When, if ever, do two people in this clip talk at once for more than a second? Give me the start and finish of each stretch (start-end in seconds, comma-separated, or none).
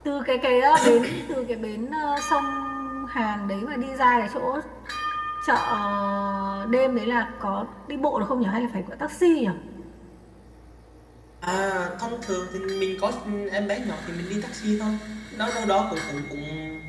none